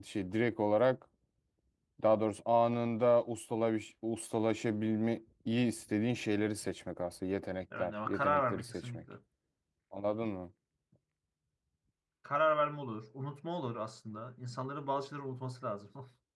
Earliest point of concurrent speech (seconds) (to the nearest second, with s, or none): 8 s